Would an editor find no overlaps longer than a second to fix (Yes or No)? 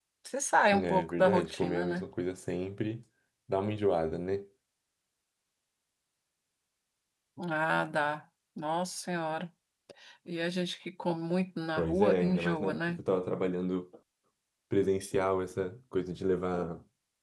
No